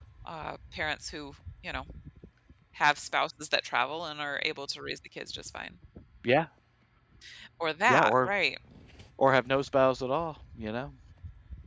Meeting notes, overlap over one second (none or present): none